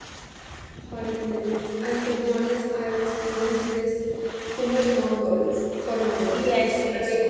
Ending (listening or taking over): taking over